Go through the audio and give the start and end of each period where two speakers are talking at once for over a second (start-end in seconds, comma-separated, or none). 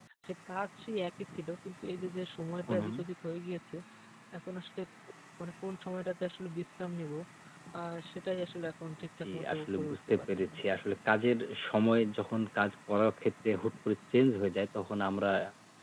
9.2-10.6